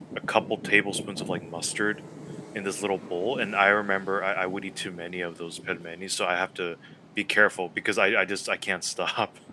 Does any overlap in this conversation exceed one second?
No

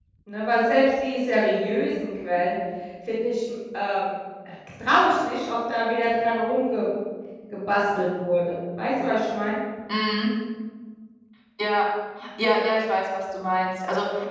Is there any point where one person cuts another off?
No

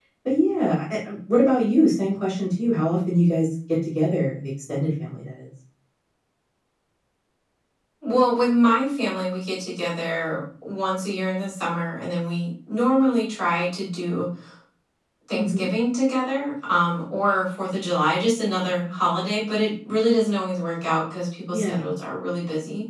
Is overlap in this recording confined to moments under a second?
Yes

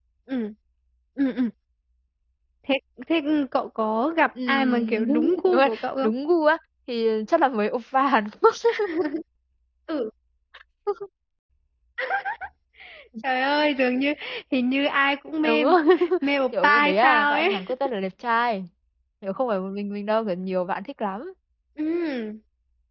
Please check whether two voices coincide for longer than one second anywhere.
Yes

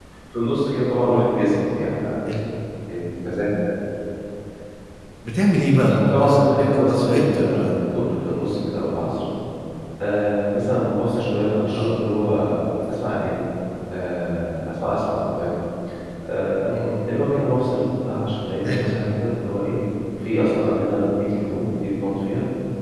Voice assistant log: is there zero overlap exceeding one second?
No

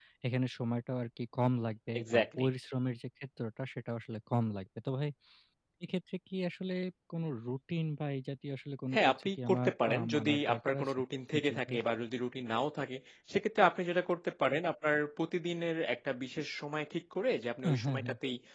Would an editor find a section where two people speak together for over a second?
Yes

